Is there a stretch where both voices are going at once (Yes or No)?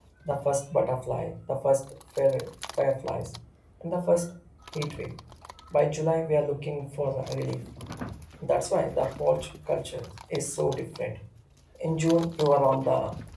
No